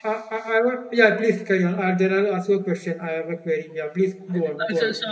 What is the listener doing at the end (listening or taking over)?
taking over